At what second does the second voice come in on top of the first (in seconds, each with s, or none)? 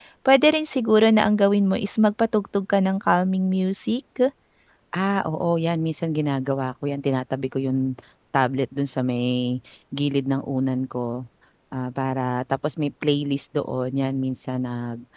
none